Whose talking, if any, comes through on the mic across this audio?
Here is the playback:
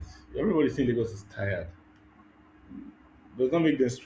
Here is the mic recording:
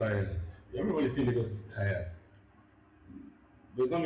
echo only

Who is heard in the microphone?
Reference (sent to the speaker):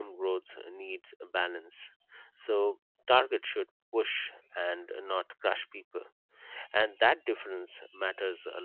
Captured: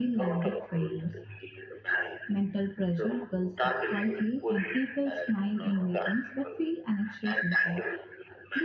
both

